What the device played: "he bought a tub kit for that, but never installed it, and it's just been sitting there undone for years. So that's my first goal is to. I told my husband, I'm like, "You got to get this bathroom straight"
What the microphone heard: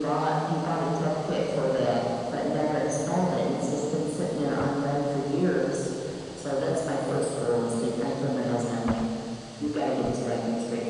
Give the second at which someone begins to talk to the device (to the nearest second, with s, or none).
none